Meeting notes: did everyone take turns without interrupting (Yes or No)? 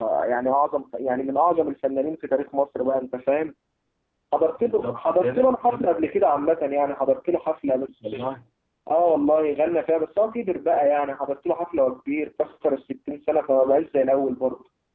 No